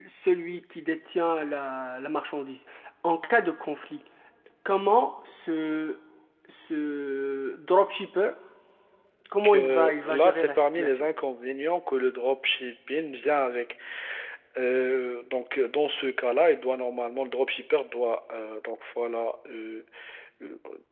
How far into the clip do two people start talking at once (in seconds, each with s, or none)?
9.4 s